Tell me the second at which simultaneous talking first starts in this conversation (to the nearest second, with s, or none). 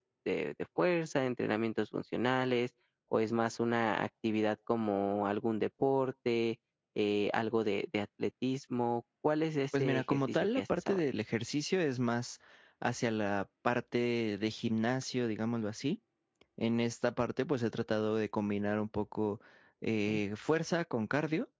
10 s